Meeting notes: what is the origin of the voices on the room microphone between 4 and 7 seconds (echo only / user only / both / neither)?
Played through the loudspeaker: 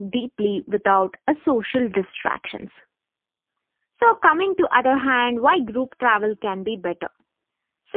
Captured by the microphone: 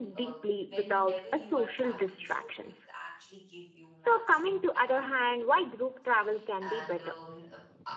both